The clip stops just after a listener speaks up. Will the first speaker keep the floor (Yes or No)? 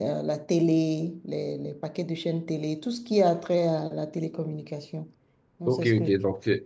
No